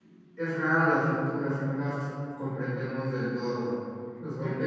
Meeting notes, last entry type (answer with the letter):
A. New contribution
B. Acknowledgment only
B